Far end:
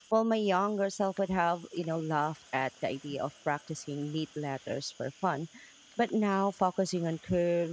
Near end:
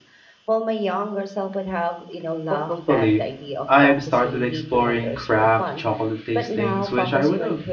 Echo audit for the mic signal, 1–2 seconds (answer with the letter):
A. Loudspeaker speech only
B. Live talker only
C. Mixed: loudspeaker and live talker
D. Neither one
A